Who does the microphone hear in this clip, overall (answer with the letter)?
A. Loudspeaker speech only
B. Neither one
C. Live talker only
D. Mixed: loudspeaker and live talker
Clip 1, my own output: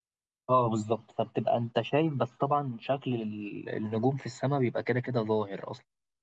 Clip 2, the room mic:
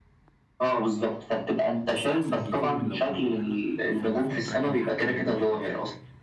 D